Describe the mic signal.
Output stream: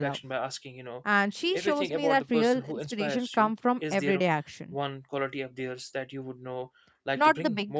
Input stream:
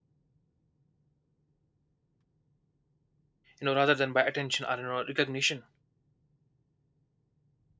user only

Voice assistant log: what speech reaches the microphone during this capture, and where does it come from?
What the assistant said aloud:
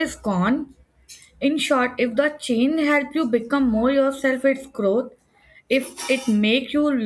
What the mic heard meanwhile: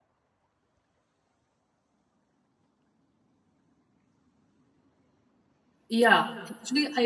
user only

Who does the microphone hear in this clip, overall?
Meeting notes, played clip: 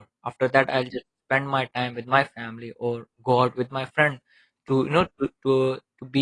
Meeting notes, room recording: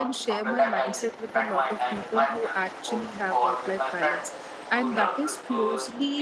both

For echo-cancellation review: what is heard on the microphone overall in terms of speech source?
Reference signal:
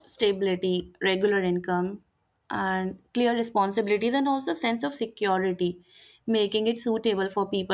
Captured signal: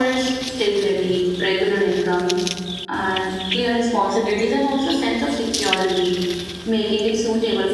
echo only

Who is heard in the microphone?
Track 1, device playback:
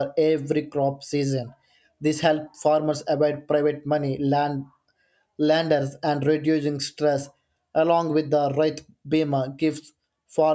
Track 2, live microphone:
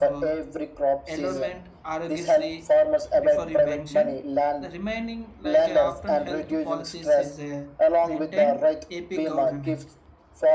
both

